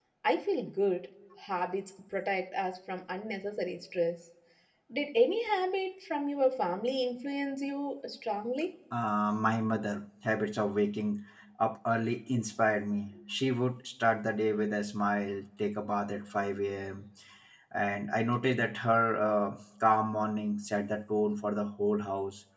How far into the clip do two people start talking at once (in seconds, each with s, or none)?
none